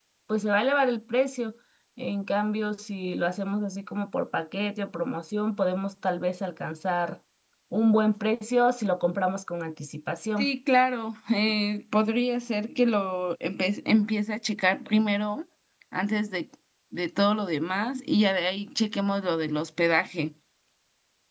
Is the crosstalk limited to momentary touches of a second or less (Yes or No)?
Yes